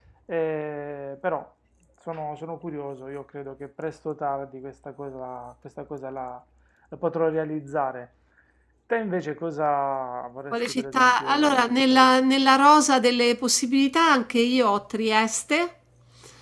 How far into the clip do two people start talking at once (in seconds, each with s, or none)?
10.5 s